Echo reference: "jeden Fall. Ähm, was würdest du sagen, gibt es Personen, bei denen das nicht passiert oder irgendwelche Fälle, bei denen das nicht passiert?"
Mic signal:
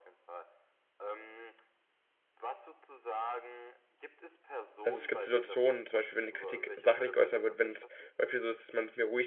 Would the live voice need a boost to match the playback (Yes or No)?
No